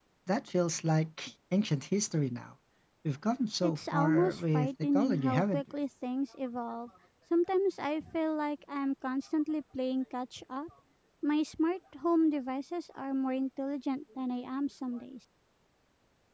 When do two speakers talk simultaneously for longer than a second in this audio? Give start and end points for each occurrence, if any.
3.6-5.6

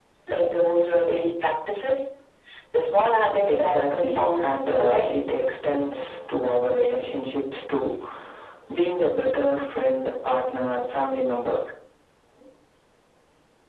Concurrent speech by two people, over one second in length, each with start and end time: 3.4-5.2

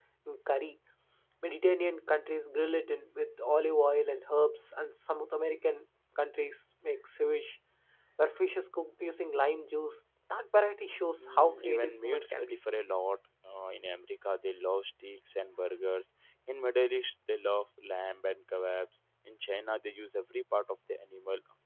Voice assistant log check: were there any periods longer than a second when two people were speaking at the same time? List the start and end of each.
11.2-12.6

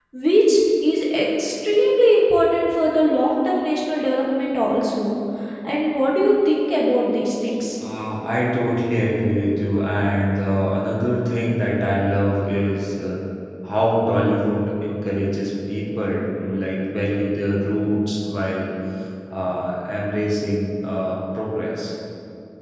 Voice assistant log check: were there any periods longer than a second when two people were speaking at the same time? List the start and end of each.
none

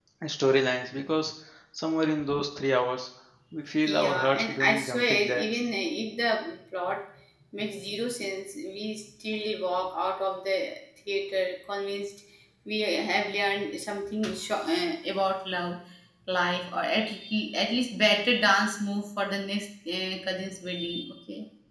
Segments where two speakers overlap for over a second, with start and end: 3.9-5.7

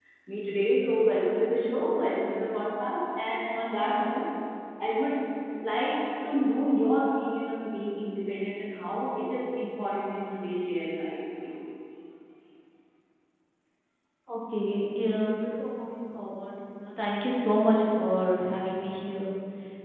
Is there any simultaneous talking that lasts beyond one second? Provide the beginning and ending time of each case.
none

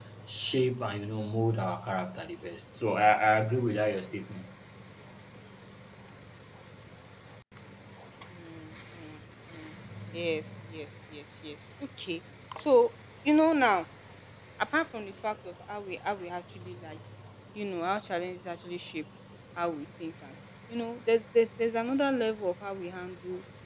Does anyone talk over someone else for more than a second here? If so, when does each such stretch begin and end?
none

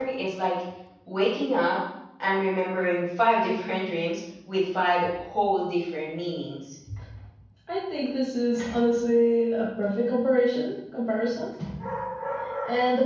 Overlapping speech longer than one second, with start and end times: none

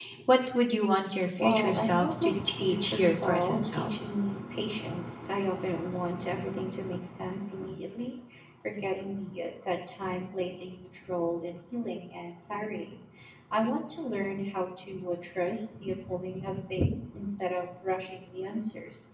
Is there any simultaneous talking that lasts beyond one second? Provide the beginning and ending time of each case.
1.4-3.9

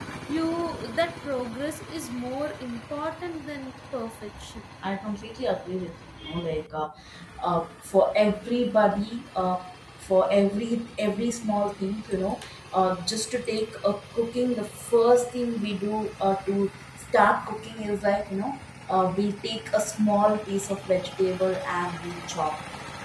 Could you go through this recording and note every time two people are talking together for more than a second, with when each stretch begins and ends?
none

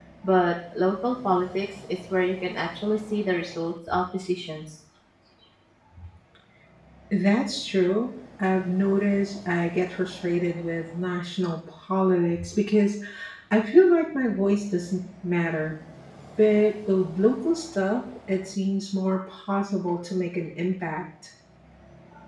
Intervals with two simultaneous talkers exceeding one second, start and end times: none

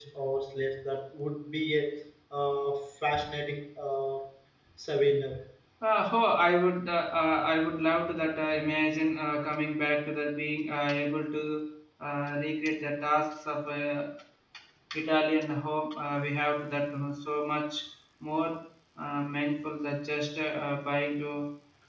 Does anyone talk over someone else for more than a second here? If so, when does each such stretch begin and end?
none

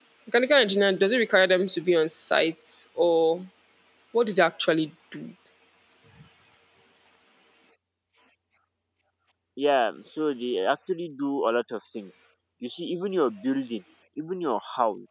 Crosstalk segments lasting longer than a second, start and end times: none

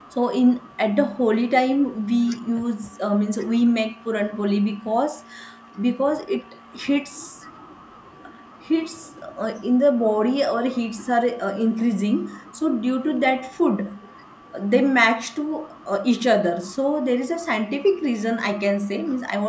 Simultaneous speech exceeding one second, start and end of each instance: none

